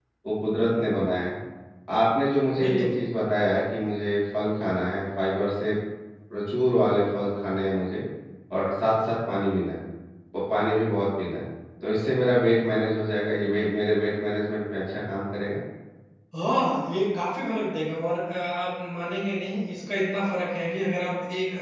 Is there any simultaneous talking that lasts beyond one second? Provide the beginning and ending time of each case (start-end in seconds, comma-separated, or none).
none